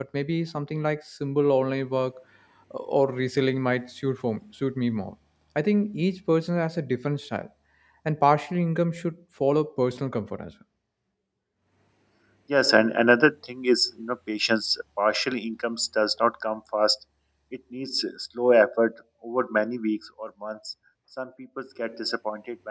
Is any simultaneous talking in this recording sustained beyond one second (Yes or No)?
No